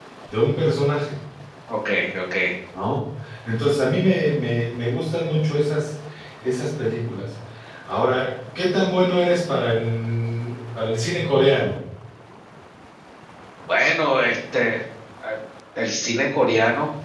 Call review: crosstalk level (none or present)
none